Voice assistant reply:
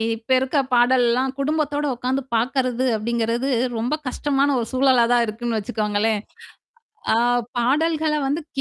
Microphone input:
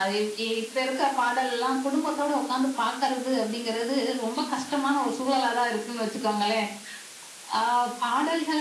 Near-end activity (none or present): none